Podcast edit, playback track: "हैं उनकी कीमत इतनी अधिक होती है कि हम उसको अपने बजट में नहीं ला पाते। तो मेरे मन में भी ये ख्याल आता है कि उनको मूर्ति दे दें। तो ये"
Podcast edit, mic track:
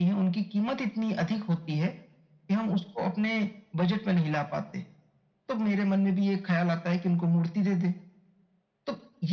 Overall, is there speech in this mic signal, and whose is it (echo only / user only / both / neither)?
echo only